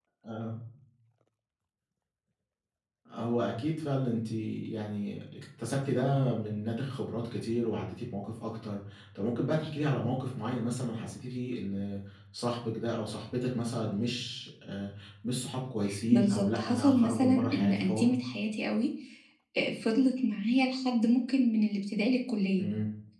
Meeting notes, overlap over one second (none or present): present